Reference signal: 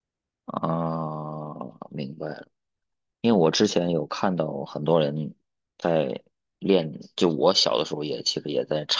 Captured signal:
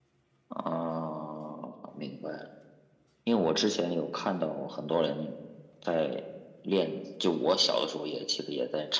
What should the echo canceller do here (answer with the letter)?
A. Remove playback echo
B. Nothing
A